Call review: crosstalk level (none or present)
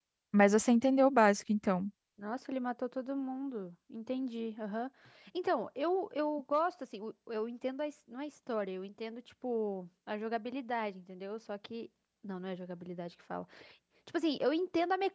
none